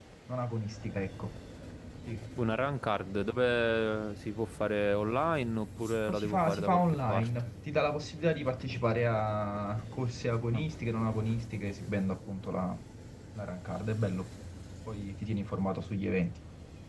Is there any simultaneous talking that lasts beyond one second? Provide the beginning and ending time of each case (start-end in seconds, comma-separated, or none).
6.1-7.5